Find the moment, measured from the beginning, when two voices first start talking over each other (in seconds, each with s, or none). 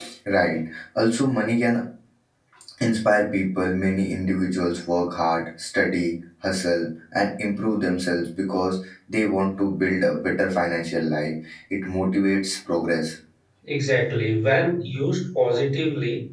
none